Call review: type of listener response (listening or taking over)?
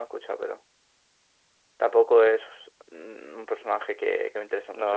taking over